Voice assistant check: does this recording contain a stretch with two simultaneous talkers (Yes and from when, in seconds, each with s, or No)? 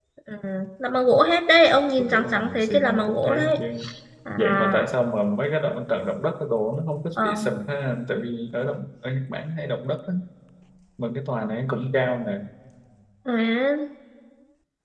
Yes, from 2.0 s